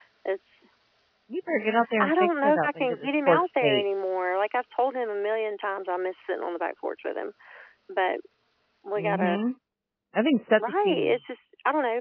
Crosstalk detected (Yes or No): Yes